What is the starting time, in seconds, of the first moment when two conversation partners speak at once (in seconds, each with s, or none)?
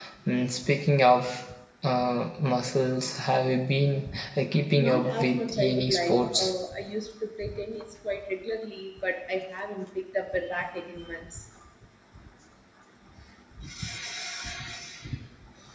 4.8 s